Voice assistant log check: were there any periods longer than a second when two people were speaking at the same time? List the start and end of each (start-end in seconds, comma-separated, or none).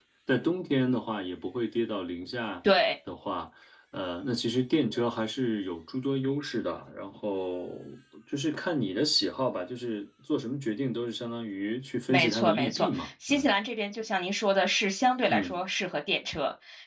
12.1-13.5